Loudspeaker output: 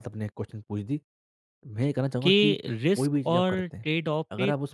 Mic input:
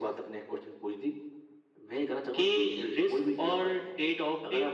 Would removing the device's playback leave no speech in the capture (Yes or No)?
Yes